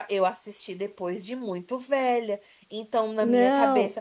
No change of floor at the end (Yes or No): Yes